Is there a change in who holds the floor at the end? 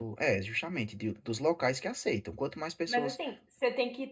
Yes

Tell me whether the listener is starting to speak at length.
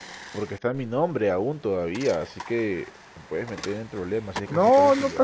Yes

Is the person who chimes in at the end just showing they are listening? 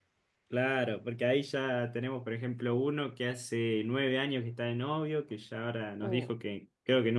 Yes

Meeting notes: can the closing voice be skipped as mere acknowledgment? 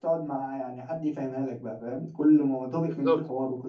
Yes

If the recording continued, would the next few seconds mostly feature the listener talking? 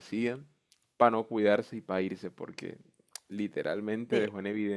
No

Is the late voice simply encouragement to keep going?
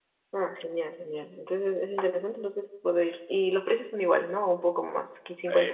No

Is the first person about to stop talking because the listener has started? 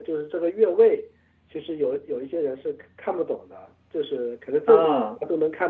No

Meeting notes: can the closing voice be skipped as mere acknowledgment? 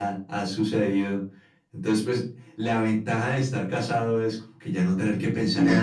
No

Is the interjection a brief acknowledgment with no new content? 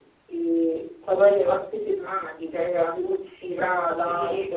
No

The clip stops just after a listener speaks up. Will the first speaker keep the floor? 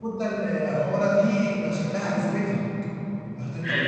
No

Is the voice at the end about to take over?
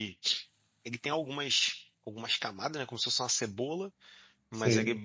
No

